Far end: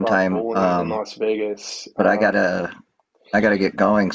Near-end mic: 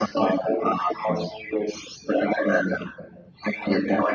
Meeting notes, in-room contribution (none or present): none